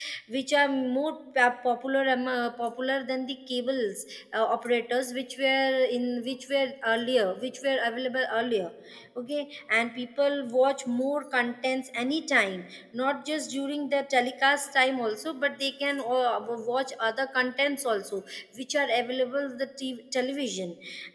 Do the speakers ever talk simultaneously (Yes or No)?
No